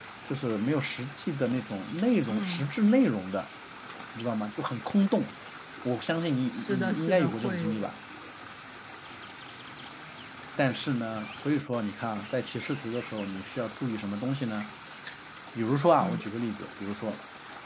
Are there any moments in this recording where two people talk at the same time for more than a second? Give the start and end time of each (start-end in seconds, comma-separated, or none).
6.5-7.9